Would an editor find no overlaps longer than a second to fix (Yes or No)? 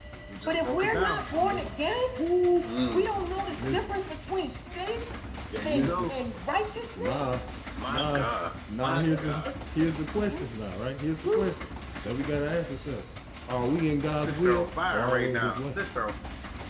No